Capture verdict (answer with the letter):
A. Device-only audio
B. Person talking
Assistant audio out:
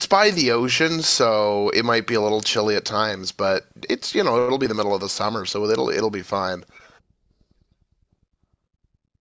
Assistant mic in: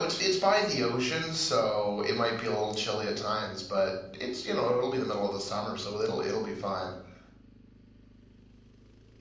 A